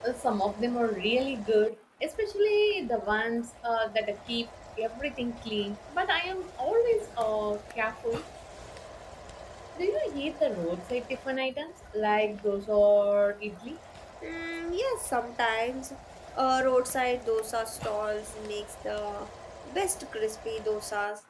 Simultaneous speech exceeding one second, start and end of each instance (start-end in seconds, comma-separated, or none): none